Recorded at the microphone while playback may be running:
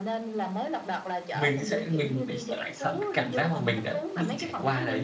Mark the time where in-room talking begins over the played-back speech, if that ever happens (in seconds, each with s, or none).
1.3 s